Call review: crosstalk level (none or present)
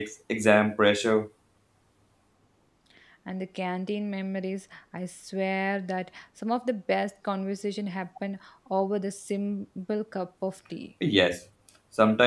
none